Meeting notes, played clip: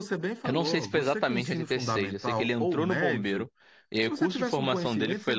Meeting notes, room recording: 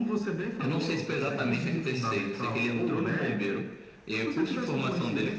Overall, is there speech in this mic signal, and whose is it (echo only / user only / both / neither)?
both